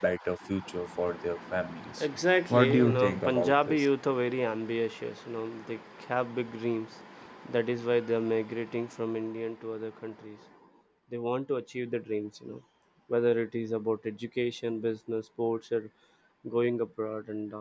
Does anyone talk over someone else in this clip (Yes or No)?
Yes